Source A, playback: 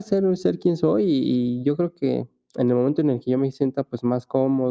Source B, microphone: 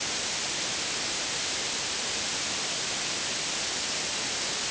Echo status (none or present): none